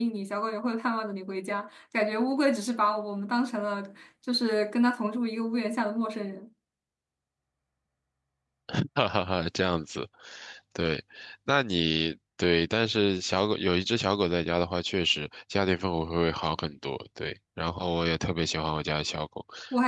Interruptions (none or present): none